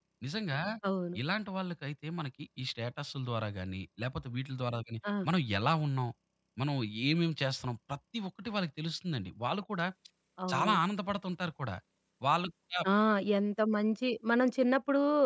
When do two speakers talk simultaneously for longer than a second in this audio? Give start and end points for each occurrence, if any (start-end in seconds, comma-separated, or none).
none